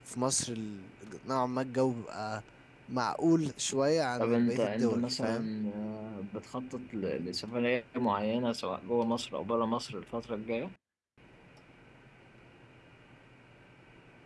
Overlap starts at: 4.2 s

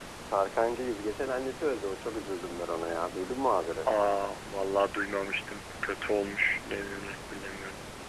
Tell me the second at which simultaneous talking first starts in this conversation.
none

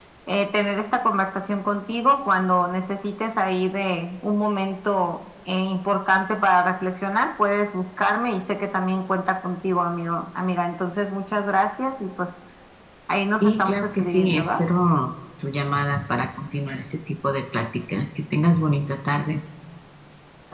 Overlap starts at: 13.4 s

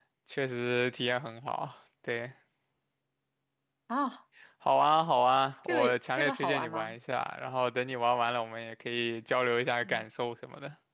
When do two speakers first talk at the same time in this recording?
5.6 s

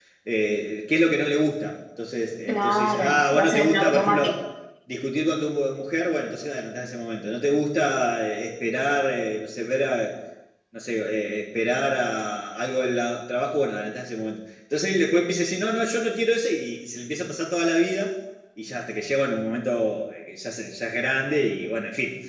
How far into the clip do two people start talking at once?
2.5 s

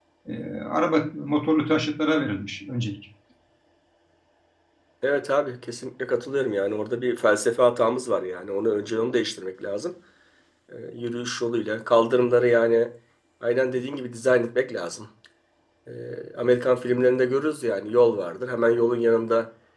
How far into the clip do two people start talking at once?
none

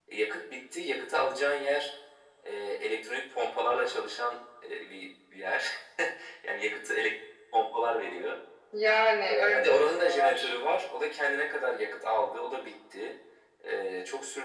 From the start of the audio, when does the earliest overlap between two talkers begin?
9.2 s

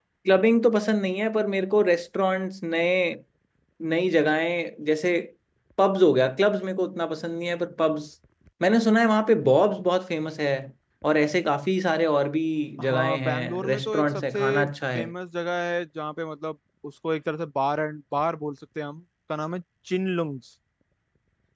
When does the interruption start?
12.8 s

